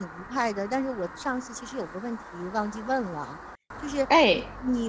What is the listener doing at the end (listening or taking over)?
listening